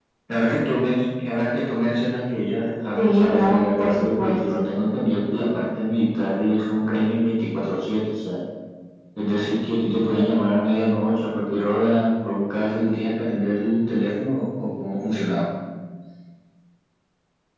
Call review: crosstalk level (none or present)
present